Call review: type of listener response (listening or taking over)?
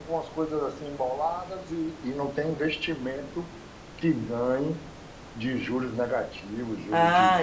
taking over